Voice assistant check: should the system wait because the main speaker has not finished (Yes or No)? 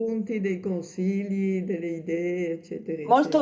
No